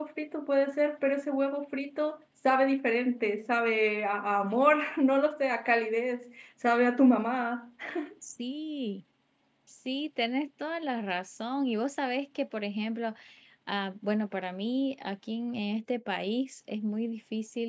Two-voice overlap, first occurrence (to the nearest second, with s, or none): none